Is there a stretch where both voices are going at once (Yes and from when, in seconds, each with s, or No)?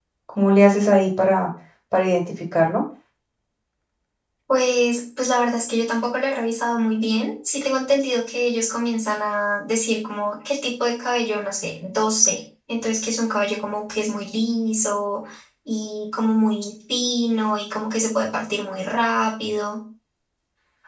No